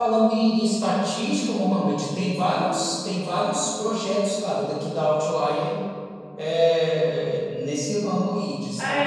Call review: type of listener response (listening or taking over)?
taking over